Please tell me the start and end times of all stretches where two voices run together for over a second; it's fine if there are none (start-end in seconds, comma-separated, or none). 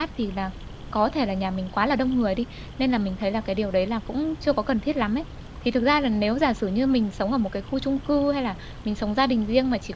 none